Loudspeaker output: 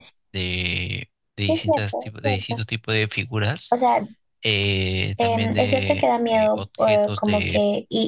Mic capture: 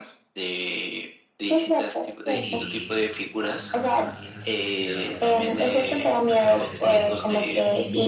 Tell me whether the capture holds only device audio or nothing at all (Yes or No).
No